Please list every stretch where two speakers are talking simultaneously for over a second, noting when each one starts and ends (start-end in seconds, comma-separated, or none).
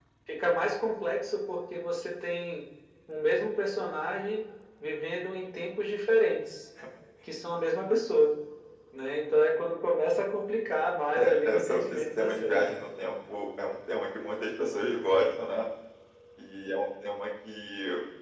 11.2-12.6